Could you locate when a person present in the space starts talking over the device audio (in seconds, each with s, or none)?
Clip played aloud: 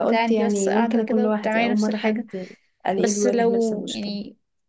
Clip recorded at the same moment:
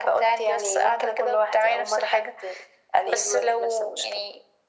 none